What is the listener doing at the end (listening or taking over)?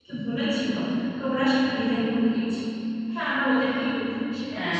taking over